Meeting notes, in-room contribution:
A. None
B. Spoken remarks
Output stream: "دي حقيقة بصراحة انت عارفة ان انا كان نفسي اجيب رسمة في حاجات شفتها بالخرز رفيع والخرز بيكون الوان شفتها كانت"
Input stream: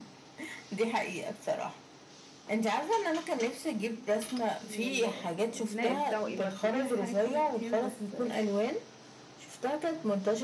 B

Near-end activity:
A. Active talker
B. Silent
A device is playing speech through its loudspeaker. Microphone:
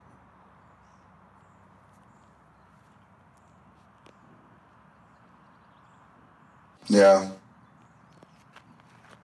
A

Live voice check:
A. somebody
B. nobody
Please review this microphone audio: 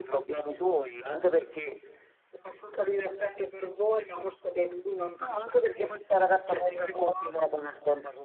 B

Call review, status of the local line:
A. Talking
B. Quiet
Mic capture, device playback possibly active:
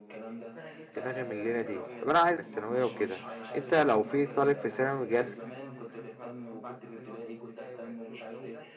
A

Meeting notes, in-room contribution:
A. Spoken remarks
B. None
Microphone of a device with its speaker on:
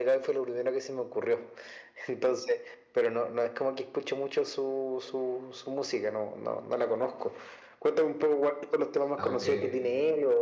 A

